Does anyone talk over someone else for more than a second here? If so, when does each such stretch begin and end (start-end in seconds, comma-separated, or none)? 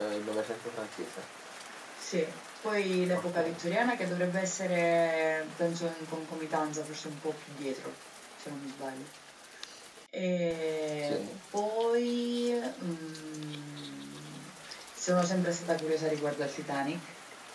none